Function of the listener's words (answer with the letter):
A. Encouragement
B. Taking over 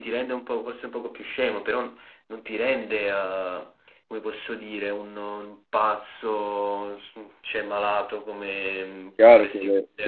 B